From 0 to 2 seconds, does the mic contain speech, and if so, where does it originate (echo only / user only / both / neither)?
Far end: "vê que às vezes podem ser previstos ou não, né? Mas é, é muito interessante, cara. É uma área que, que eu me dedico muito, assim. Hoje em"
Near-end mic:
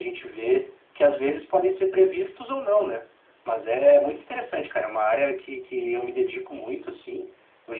echo only